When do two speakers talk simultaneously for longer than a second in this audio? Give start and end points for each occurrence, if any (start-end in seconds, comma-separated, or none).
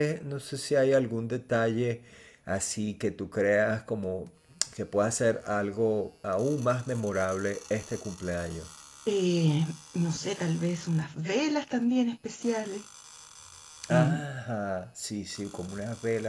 none